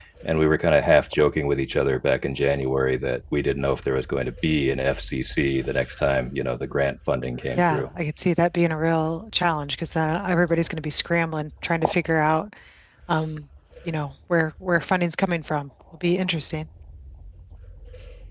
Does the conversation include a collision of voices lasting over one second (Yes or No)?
No